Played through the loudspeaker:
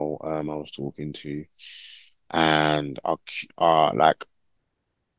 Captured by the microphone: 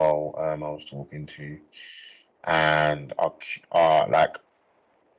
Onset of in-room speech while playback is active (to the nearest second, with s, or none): none